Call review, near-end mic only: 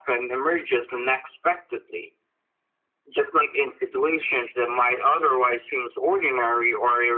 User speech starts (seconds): none

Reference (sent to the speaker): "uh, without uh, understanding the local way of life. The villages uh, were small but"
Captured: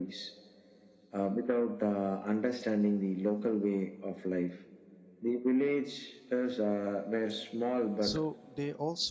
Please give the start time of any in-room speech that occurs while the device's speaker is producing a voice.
8.0 s

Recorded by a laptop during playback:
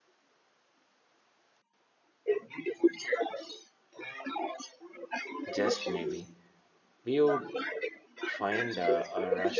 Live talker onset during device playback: 5.5 s

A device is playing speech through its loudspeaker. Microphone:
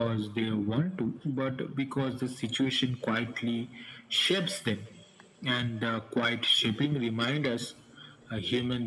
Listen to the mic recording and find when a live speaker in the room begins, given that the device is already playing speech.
none

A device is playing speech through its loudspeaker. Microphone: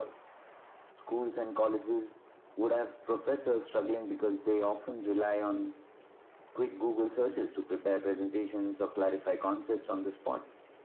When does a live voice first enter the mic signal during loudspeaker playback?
none

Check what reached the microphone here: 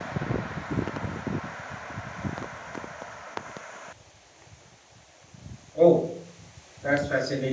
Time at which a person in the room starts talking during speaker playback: 5.8 s

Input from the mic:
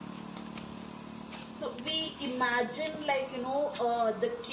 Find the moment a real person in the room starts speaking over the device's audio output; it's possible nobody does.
1.5 s

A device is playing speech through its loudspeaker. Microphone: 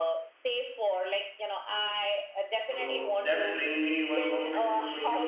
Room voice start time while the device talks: 2.6 s

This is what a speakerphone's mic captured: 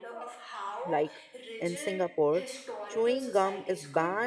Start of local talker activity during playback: 0.8 s

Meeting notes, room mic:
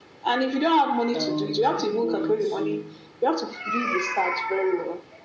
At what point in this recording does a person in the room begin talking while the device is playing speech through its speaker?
1.2 s

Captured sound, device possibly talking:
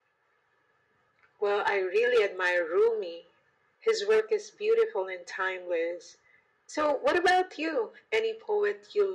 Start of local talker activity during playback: none

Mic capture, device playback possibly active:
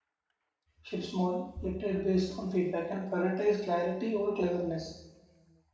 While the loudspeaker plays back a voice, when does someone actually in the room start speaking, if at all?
0.8 s

